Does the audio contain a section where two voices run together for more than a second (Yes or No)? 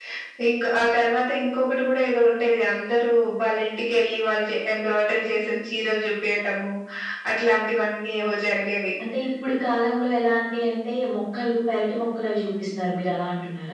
No